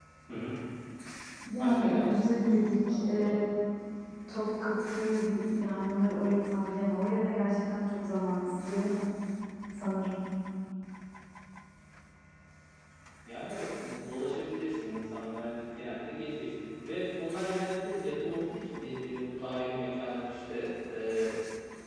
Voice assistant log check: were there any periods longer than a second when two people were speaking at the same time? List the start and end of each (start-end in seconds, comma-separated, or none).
1.6-3.4